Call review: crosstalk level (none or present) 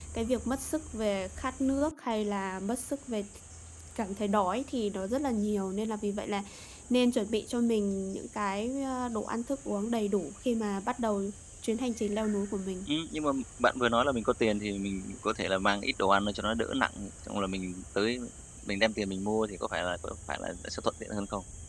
none